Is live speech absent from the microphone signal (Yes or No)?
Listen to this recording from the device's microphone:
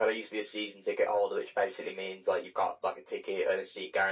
Yes